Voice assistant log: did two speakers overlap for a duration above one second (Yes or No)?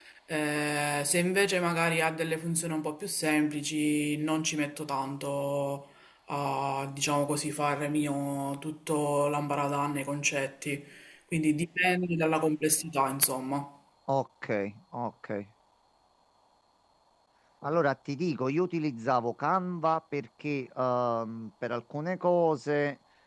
No